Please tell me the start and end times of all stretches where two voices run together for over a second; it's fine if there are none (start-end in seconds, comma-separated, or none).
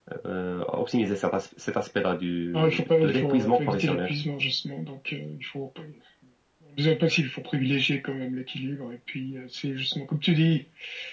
2.5-4.1